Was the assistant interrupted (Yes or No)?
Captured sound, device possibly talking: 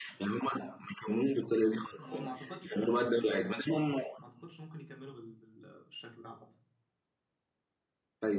Yes